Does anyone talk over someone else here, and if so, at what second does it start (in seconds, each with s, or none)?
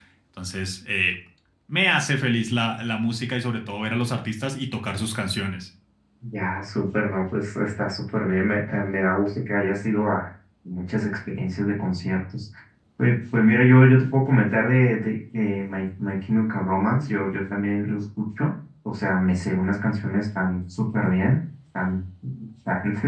none